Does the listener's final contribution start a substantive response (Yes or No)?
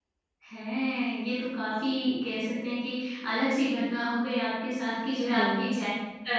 No